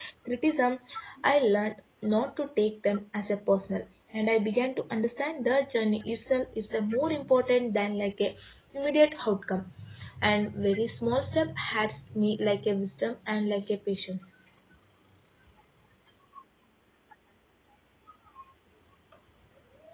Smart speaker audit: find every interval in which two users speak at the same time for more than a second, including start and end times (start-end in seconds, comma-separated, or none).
none